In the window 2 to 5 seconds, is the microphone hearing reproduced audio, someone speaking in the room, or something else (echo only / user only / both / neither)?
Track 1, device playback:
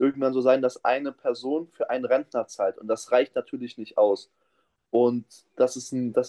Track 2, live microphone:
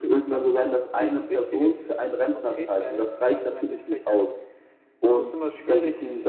both